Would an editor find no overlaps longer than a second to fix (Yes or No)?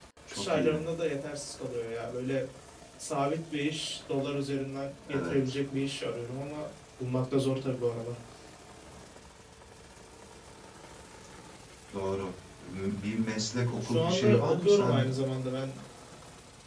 No